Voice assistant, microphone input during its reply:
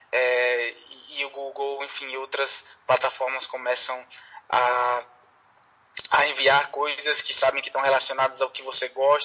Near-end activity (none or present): none